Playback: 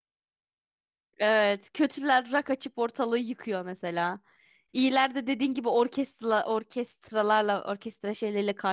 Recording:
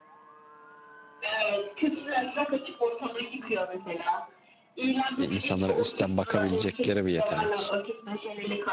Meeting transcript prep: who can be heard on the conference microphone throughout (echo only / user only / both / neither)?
both